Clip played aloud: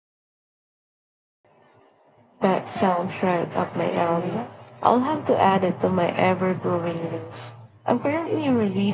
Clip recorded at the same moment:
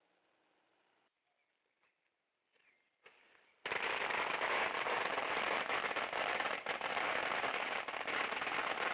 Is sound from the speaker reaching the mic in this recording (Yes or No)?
No